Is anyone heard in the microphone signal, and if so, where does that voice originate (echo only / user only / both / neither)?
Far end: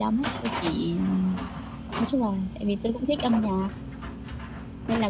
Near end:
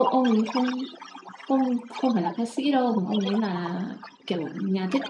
both